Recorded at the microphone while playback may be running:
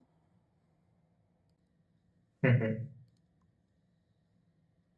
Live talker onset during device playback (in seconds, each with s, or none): 2.4 s